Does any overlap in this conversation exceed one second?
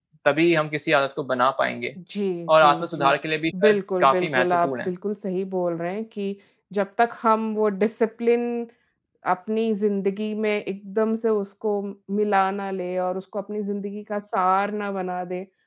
Yes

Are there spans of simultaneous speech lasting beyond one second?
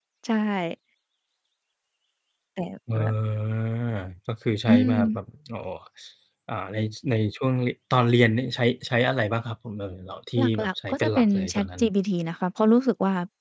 Yes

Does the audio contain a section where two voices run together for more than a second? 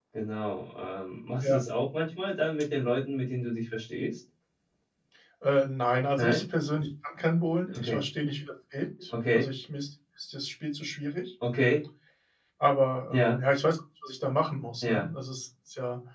No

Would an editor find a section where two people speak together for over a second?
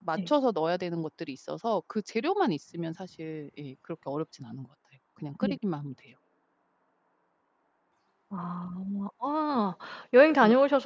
No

